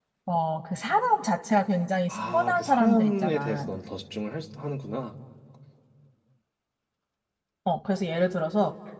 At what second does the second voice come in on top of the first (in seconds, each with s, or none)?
2.1 s